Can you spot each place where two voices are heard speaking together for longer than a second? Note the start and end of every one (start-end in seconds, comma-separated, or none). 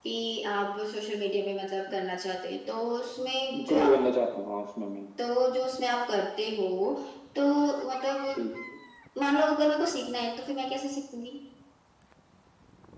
none